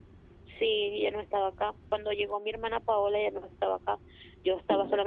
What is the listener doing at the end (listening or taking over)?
listening